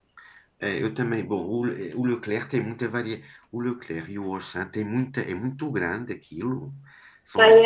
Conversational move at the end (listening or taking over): listening